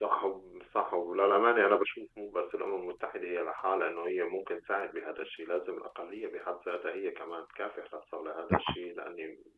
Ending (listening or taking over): listening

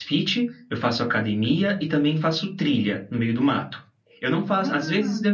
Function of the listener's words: listening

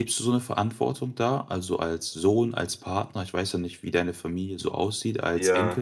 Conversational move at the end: taking over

